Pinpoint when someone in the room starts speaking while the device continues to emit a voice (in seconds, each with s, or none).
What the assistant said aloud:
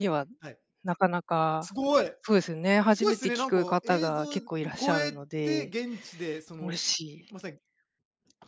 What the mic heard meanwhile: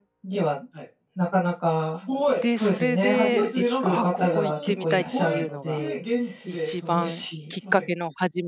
2.4 s